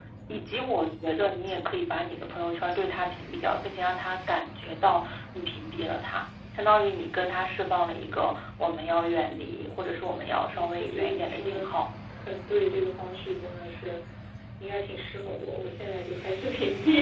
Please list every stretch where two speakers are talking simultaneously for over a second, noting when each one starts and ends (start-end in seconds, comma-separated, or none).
10.1-11.6